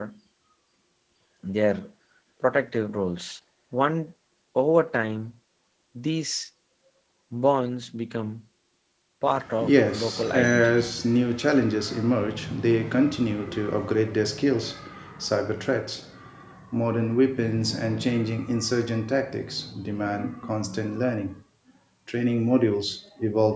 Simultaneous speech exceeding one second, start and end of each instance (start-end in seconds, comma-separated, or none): 9.6-11.0